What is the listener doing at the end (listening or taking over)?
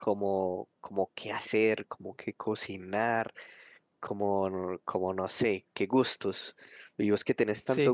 listening